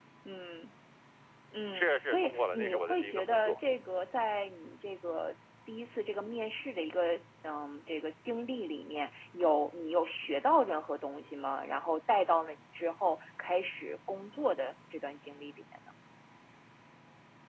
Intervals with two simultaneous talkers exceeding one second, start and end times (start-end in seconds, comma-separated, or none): 1.7-3.5